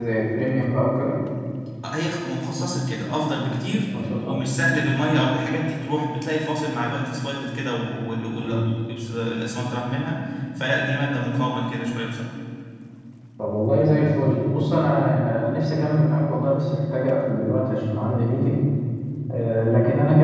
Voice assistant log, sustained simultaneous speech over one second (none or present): none